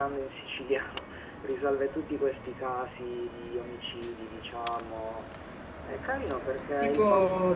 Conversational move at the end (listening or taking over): taking over